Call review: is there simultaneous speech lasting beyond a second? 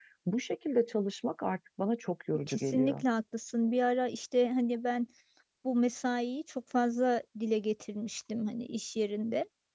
No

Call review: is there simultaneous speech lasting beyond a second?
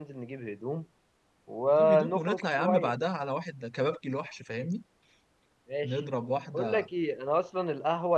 Yes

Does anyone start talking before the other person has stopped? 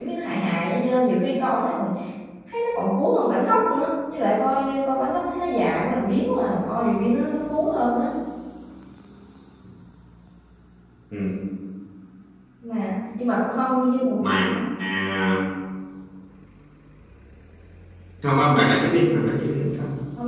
No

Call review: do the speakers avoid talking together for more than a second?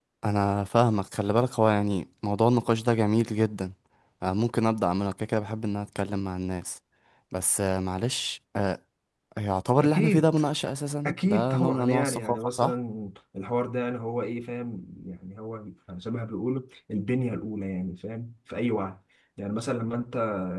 No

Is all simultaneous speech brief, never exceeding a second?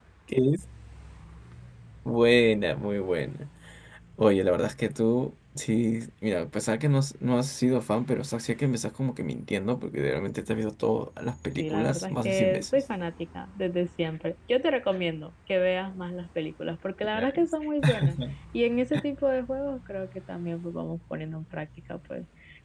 No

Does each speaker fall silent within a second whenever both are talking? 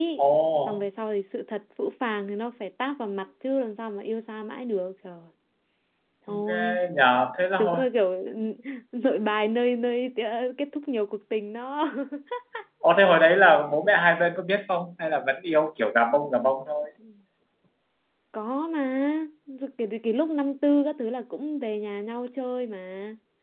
Yes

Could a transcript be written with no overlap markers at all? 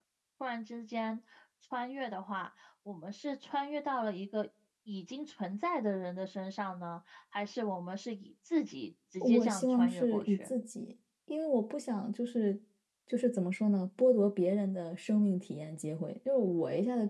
No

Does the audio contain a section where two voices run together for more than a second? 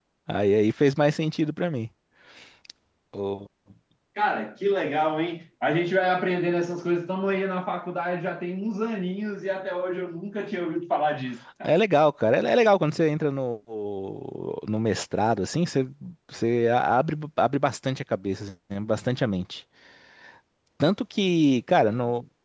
No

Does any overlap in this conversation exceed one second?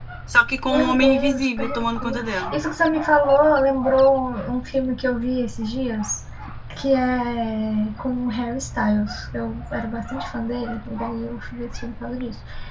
Yes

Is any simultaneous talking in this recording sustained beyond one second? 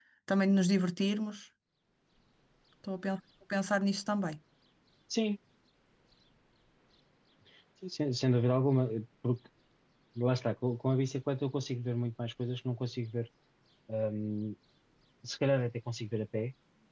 No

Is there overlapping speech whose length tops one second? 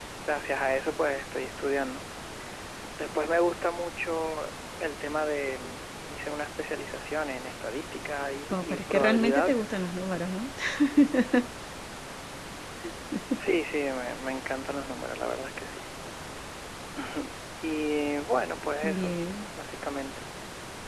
Yes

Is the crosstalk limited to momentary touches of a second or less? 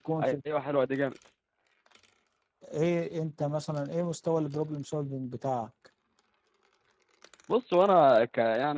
Yes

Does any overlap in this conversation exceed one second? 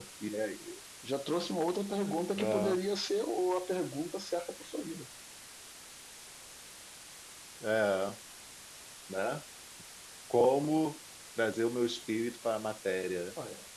No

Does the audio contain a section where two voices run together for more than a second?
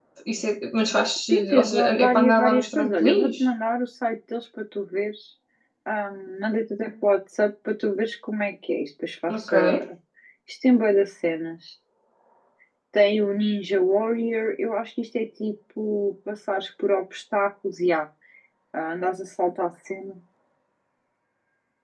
Yes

